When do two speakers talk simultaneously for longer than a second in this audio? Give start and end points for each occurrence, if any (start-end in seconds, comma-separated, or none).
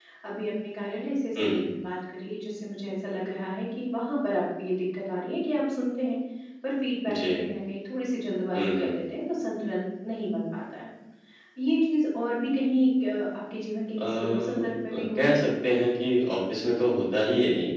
14.0-15.5